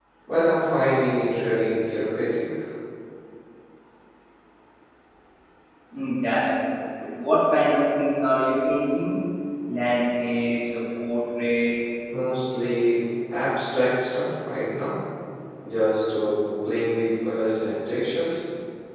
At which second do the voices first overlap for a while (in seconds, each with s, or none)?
none